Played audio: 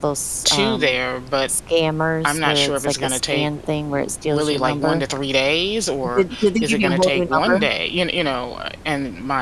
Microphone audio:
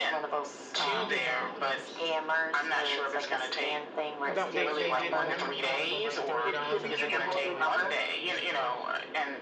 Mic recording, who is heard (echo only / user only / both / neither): both